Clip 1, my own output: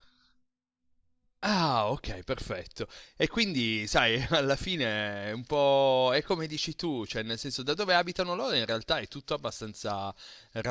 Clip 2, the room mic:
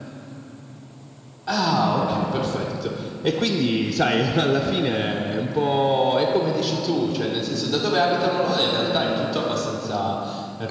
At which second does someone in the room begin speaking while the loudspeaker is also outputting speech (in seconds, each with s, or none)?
none